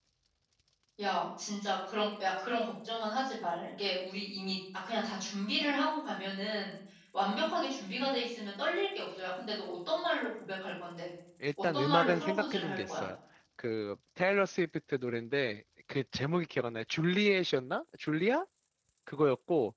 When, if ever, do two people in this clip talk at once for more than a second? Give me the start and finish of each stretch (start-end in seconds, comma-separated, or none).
11.6-13.0